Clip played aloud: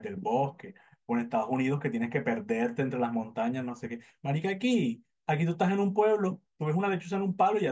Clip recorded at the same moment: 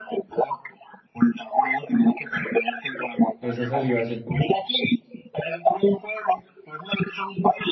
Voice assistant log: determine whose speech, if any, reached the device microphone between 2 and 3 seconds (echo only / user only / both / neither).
echo only